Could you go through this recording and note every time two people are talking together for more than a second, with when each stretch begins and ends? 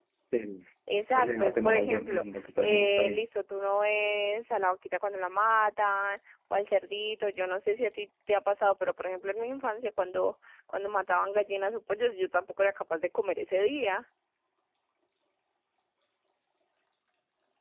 1.1-3.2

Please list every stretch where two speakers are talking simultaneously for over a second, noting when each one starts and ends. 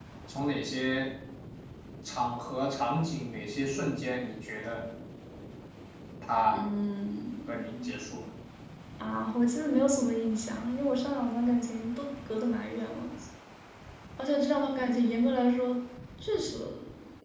none

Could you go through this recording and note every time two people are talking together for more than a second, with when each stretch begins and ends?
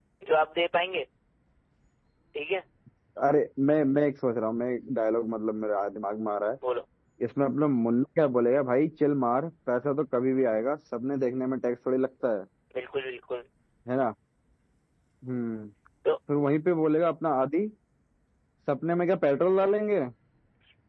none

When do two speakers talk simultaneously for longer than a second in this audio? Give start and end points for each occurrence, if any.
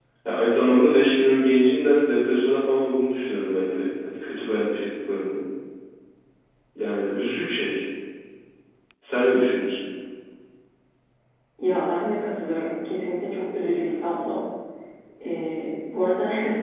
none

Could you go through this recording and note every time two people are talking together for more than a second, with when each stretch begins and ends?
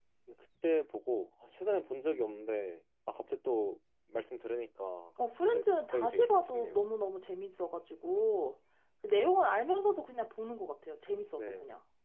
5.4-6.8

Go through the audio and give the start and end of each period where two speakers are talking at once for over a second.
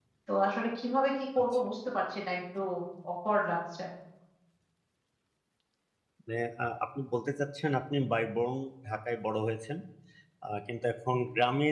none

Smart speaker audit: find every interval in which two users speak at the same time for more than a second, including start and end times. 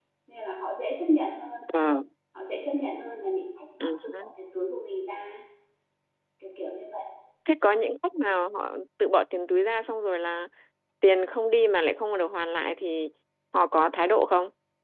none

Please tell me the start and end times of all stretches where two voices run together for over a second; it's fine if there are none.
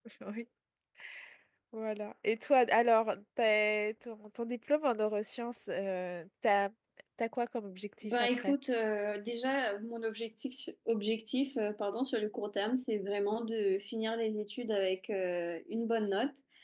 none

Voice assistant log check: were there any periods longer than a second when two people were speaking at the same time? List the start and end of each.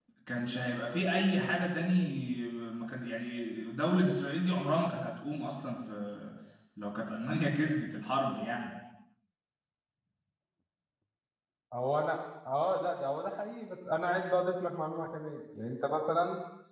none

